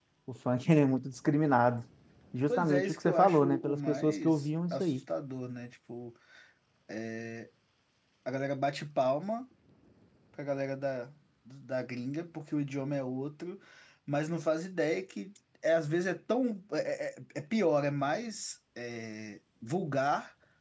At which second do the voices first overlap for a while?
2 s

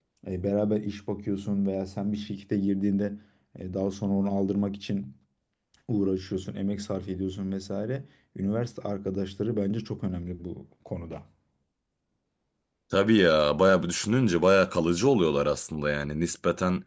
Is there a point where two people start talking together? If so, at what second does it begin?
none

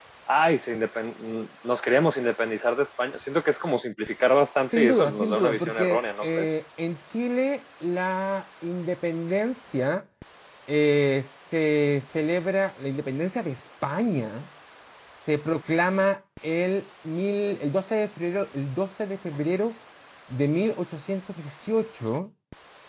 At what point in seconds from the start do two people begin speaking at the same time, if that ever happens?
5 s

